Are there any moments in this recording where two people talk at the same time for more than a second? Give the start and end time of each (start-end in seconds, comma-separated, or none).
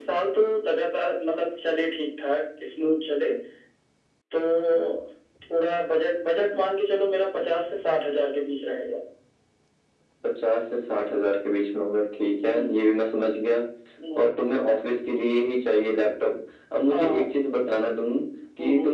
none